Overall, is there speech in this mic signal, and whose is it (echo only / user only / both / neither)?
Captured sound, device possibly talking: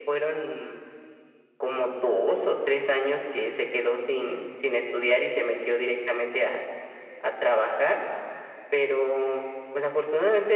echo only